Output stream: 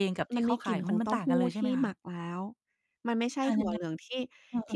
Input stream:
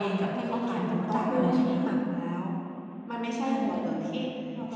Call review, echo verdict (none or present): present